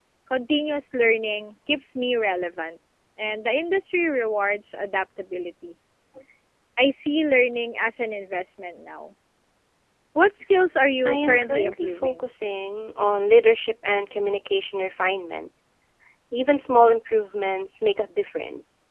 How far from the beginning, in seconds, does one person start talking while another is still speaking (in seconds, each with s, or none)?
11.0 s